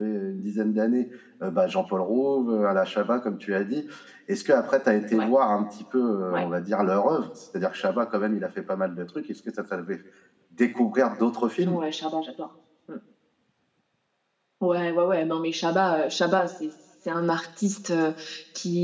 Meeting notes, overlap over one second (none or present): none